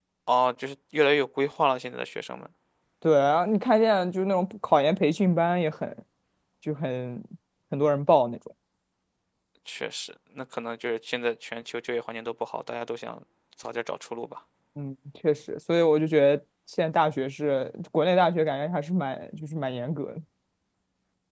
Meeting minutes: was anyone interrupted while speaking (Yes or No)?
No